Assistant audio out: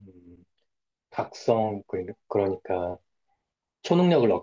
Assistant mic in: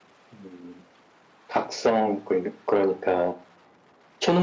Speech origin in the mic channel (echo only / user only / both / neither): echo only